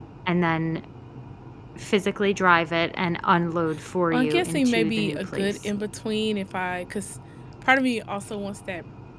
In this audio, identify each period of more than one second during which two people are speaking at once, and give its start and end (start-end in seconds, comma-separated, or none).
4.1-5.7